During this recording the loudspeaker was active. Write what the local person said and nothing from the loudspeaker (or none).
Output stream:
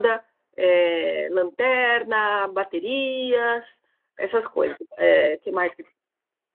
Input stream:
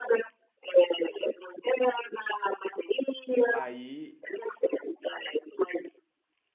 aí,